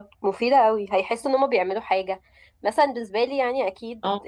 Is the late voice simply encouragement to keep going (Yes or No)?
Yes